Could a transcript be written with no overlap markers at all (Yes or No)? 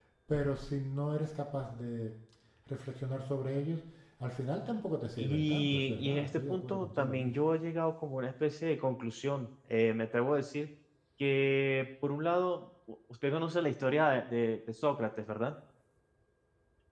No